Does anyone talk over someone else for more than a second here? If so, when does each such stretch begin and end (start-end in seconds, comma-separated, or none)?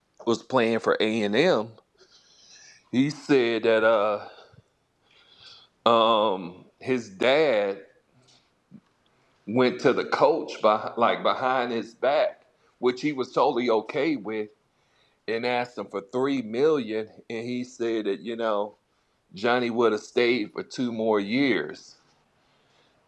none